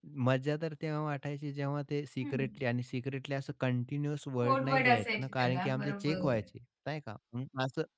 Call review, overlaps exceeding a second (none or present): present